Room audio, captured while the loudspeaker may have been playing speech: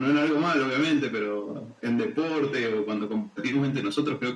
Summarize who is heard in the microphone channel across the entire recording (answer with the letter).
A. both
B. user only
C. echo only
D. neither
C